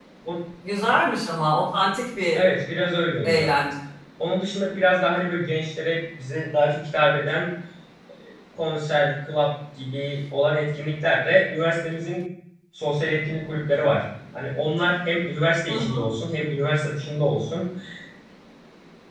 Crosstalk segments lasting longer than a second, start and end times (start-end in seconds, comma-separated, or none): none